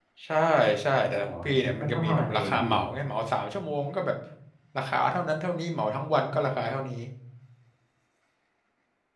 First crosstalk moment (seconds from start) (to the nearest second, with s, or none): 1 s